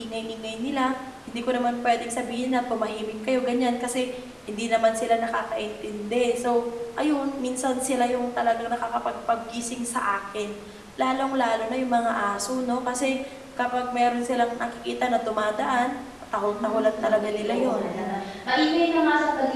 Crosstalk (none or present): present